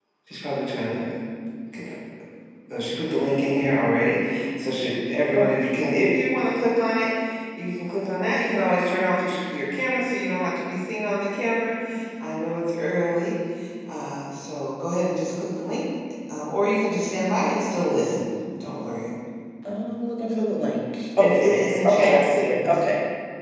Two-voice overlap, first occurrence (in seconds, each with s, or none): 21.2 s